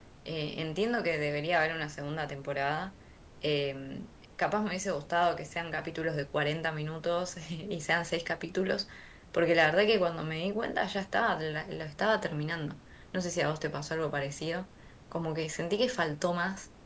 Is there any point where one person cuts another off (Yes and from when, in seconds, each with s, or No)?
No